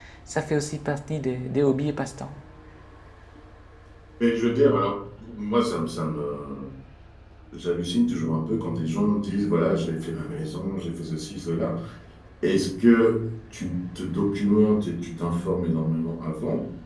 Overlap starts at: none

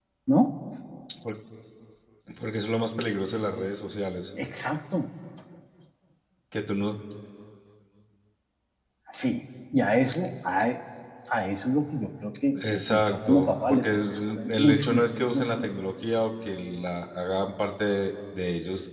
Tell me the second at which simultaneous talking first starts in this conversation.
12.6 s

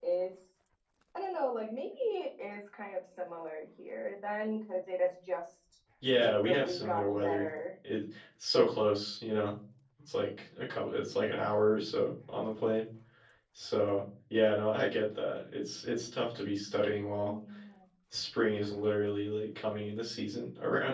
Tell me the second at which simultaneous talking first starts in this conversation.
6.0 s

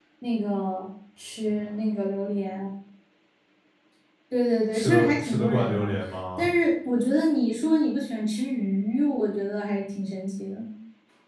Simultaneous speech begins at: 4.7 s

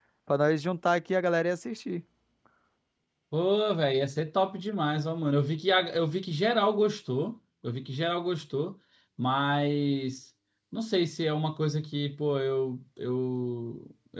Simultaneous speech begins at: none

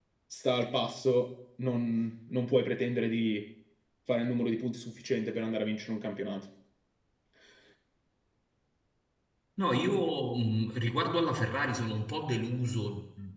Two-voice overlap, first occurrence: none

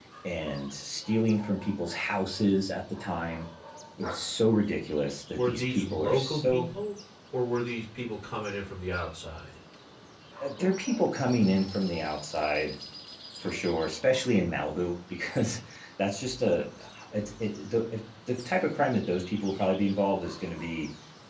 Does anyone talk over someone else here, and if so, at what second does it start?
5.3 s

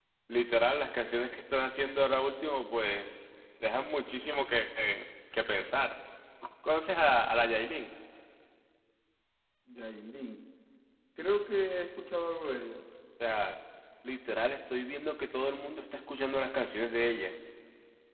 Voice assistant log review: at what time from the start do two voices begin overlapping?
none

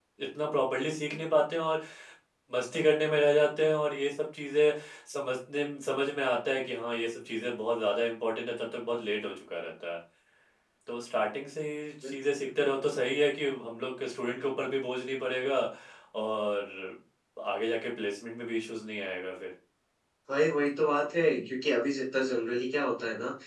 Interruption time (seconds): none

